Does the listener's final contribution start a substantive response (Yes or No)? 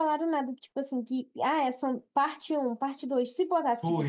No